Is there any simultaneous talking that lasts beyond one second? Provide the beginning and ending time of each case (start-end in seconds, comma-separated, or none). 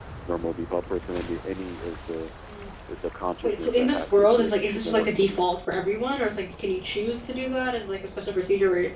3.4-5.5